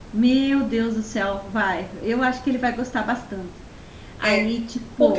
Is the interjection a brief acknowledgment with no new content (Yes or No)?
No